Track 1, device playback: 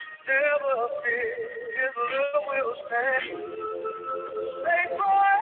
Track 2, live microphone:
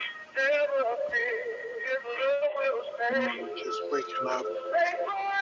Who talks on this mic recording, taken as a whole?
both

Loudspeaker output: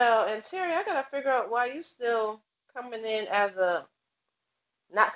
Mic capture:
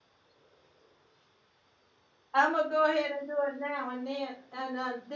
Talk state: user only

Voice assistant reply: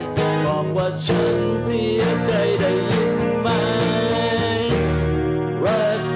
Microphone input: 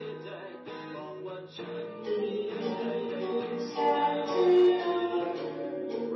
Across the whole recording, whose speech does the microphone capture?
both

